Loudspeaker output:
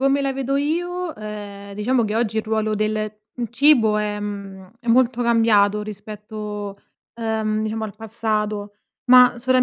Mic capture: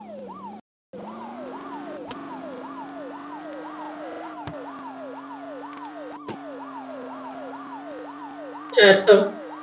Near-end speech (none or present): present